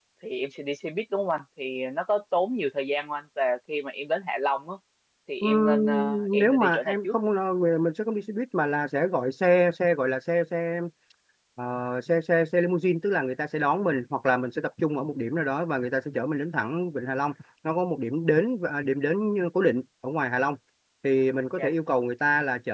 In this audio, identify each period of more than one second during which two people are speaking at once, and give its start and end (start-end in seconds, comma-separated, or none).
5.4-7.2